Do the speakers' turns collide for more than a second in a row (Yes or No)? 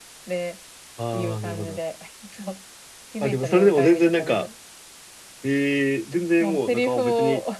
Yes